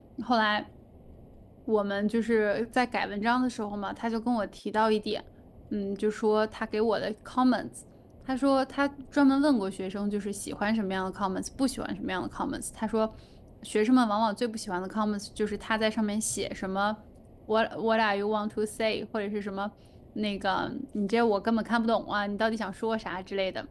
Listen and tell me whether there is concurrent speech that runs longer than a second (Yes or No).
No